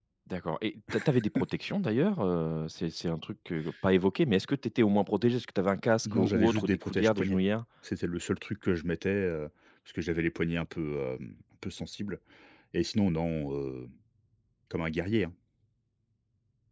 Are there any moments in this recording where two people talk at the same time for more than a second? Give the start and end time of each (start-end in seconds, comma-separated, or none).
6.0-7.4